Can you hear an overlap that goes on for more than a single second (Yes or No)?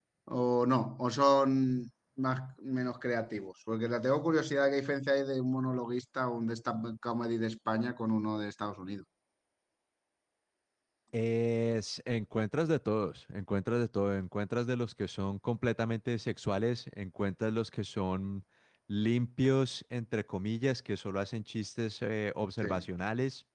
No